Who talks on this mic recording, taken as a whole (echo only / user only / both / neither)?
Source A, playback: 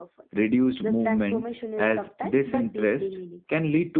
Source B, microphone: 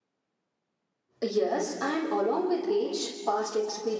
user only